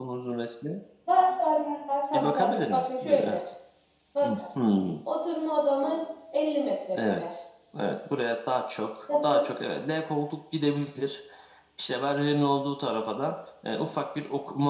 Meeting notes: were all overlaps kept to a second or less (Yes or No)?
No